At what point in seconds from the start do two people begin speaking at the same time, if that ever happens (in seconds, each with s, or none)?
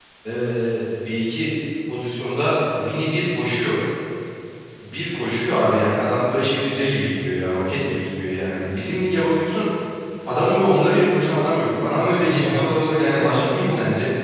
12.3 s